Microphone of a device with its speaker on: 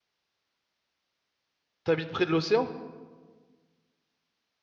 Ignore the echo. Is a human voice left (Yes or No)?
Yes